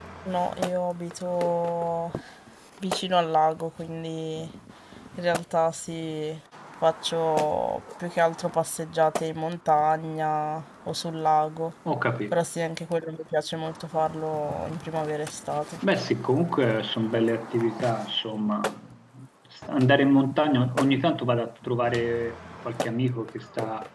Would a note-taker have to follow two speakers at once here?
No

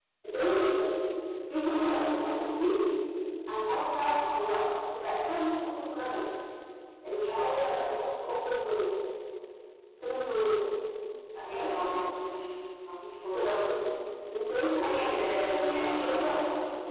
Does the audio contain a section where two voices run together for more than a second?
Yes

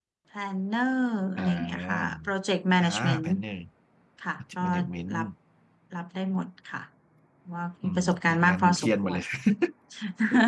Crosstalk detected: Yes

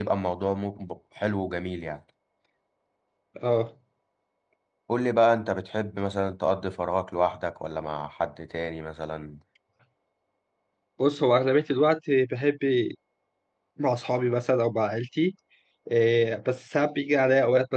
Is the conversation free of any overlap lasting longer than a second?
Yes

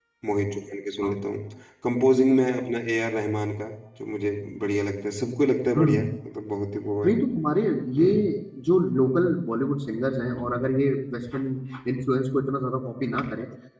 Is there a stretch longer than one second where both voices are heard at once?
No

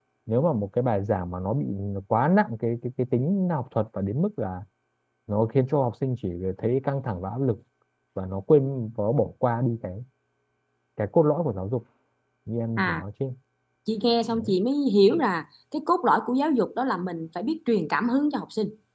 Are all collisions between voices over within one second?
Yes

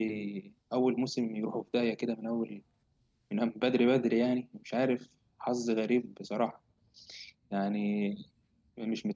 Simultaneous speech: No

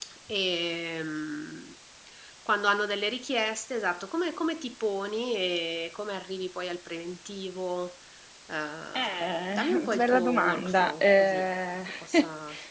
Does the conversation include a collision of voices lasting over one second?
Yes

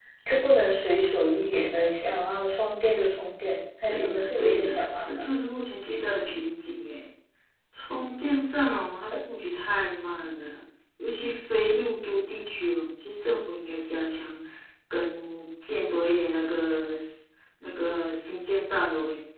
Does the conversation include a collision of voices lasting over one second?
Yes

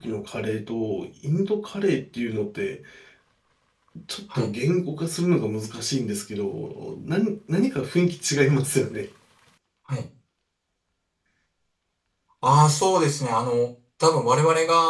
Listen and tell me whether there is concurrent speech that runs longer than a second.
No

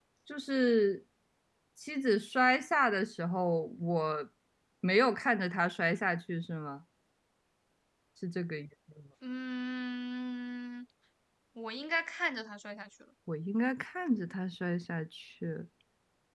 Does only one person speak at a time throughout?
Yes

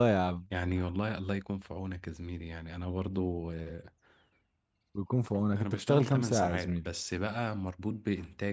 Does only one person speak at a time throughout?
No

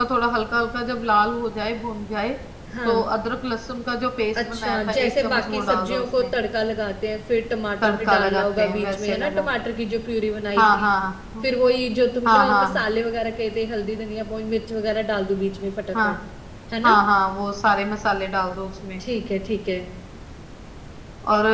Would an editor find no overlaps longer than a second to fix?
No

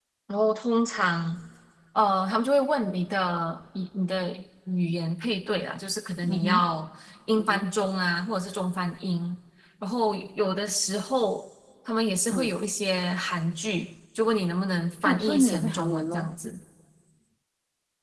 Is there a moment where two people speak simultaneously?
Yes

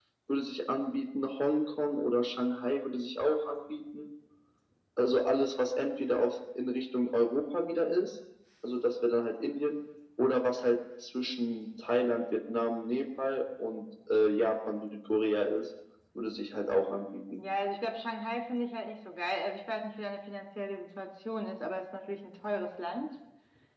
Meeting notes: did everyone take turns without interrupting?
Yes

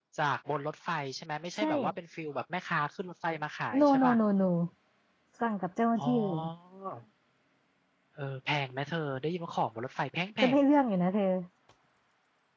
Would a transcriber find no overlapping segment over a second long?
Yes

